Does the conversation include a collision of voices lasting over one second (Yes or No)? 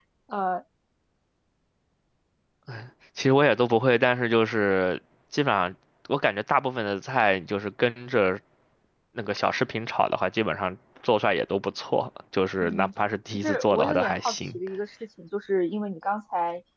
Yes